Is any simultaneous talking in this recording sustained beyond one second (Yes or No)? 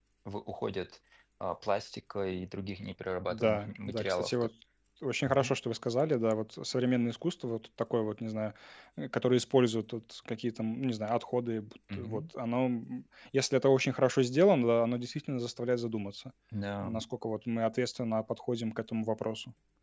Yes